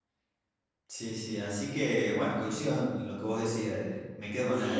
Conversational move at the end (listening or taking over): taking over